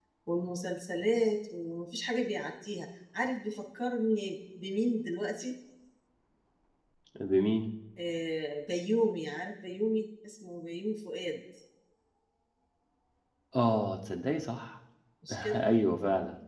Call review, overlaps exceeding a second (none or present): none